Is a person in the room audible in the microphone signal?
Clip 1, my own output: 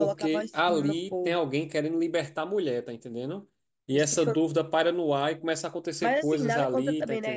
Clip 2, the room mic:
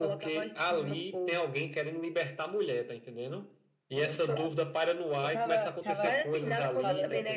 Yes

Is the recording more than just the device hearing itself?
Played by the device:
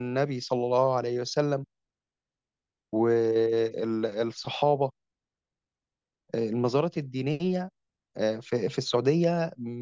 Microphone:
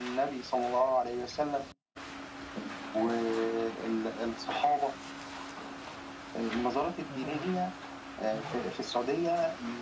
No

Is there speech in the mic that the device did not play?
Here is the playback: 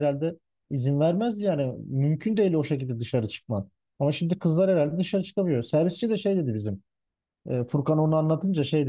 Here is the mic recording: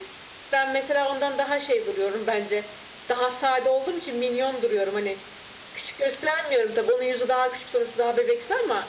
Yes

